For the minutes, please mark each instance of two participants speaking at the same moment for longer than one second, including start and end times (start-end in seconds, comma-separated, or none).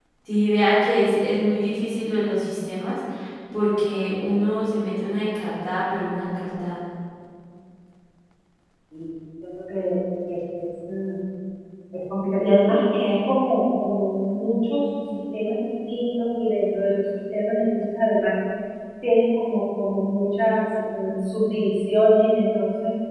none